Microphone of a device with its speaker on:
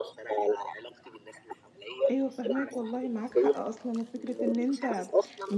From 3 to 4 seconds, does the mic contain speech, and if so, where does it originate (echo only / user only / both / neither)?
both